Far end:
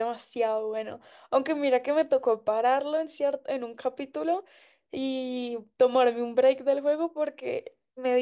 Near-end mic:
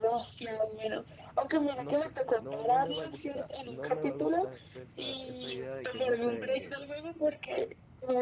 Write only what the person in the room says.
no sé, no, no me va a gustar. No me va a gustar esa, esa idea de que no se vengue.

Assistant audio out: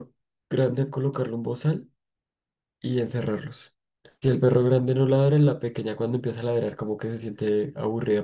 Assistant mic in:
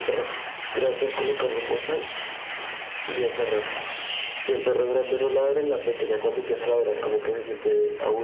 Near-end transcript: none

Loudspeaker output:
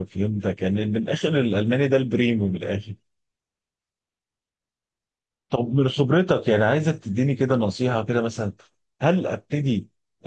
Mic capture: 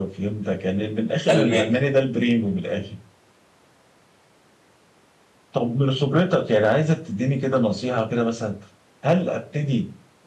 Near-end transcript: ألماني

